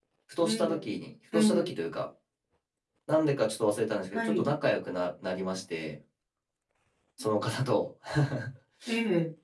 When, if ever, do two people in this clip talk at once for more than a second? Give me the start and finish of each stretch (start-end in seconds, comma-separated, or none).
none